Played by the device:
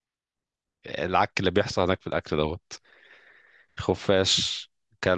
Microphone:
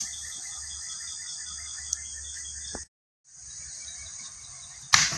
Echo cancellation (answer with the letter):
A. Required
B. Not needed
B